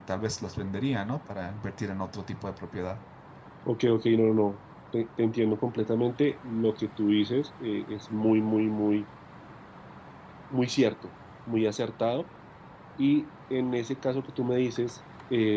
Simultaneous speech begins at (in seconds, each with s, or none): none